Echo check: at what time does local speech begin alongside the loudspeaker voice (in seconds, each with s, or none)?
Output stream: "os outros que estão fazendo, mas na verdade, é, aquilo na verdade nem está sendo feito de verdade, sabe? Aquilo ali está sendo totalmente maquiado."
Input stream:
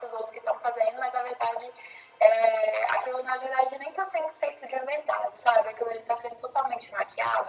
none